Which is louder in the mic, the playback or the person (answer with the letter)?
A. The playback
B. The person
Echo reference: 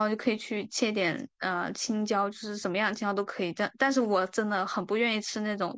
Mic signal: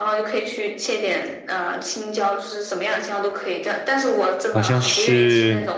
B